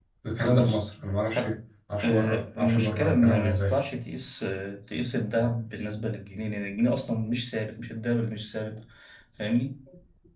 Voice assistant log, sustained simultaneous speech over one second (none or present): present